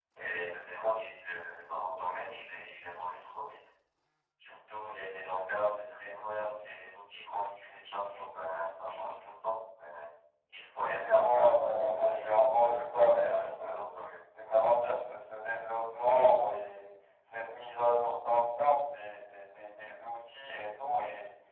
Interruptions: present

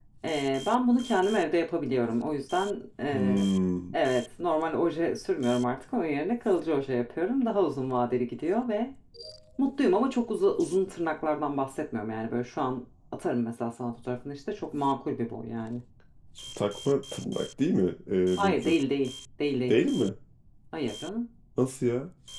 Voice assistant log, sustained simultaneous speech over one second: none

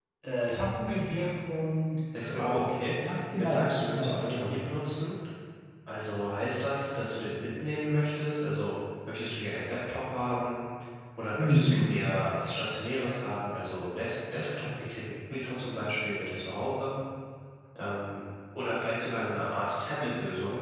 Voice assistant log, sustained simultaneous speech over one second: present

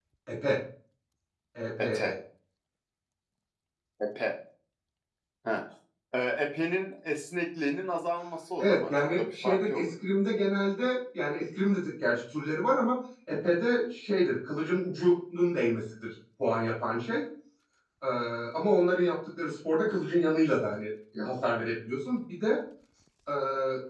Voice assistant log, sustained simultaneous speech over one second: present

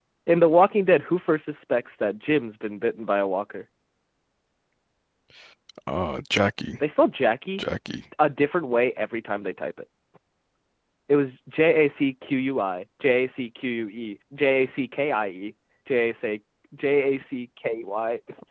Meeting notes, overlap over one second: none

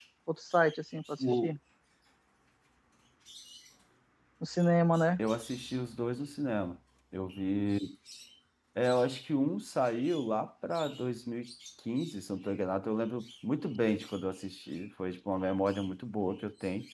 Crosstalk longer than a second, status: none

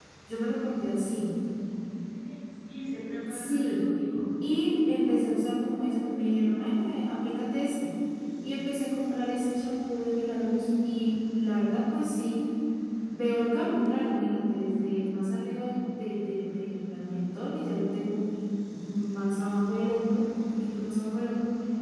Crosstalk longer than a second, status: none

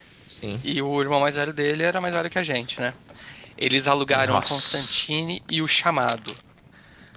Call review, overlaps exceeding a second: present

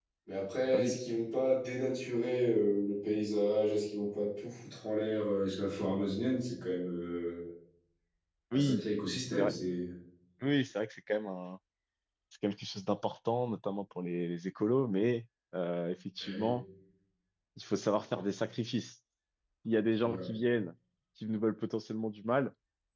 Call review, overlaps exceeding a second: none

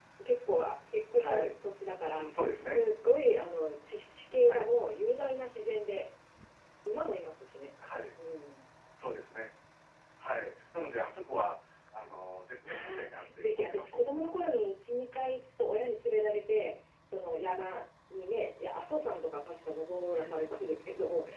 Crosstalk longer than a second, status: present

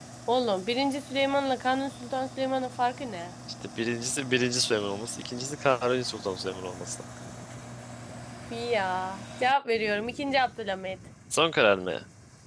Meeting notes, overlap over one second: none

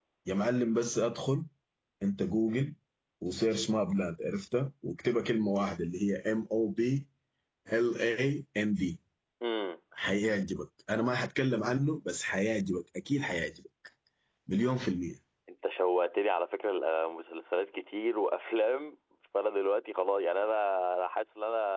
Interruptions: none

